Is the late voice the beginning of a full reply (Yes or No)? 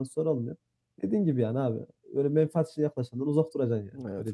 Yes